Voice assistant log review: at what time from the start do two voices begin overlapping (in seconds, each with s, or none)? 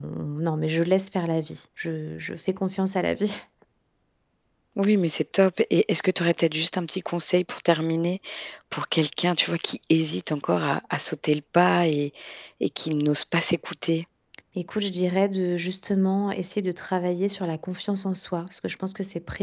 none